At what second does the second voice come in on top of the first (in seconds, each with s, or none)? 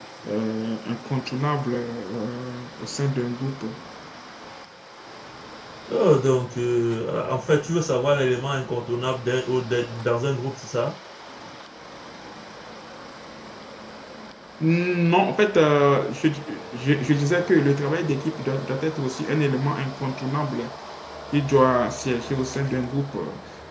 none